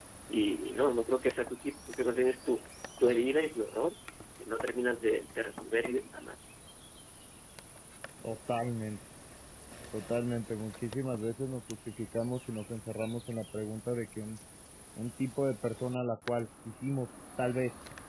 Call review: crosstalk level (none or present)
none